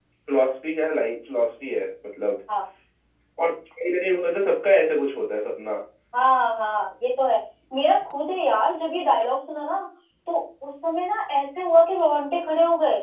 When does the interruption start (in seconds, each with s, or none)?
none